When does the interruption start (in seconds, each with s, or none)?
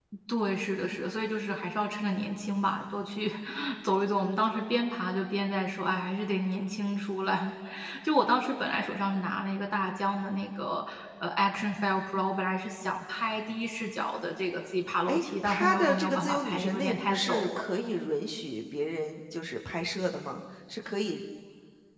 15.1 s